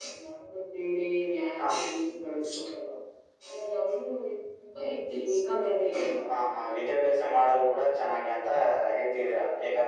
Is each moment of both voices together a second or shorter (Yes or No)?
Yes